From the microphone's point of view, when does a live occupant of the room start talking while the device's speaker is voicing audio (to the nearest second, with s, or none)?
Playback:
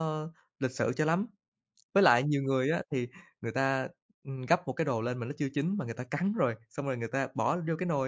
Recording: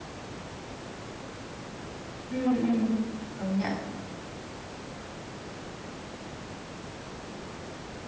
2 s